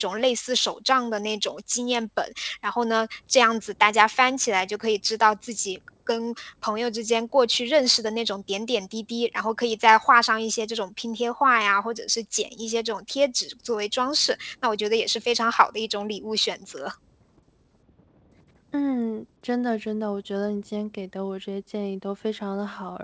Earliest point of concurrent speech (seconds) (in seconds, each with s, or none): none